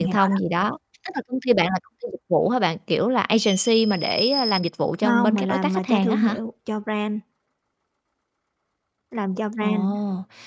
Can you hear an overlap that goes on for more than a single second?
Yes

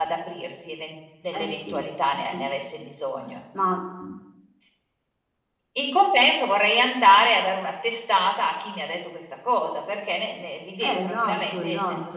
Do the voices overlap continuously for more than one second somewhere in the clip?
Yes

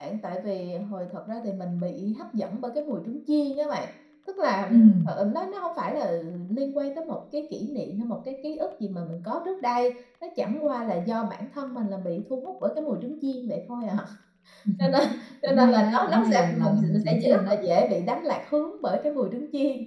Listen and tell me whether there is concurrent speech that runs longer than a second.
Yes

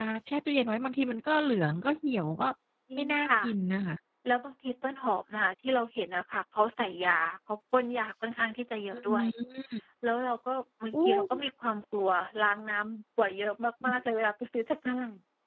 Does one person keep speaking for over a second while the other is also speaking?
No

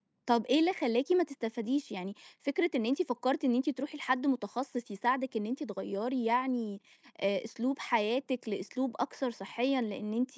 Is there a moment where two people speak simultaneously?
No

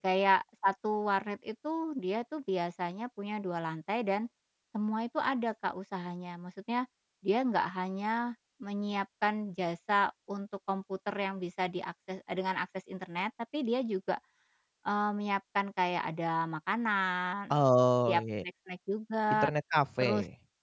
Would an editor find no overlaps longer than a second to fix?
Yes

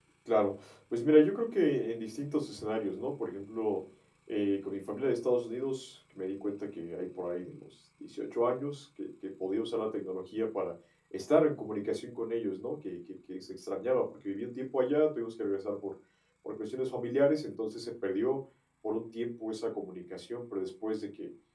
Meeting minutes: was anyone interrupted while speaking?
No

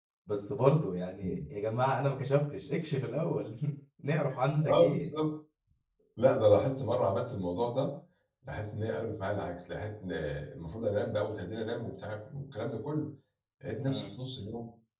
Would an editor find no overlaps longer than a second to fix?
Yes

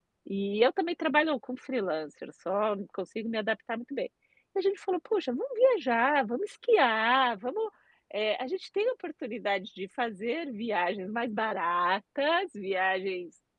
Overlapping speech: No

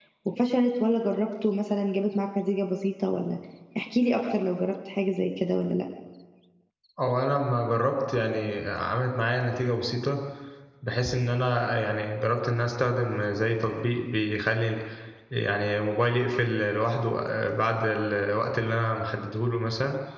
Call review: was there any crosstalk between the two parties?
No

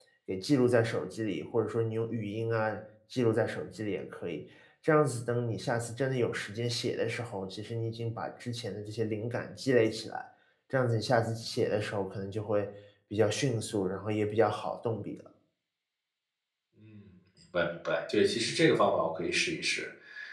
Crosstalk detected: No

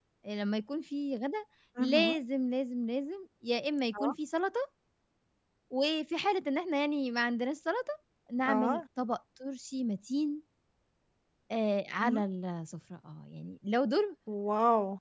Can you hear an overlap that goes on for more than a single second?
No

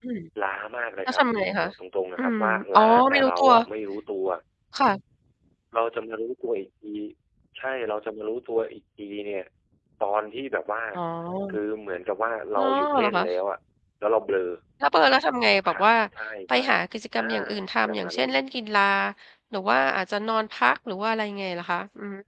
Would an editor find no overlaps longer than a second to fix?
No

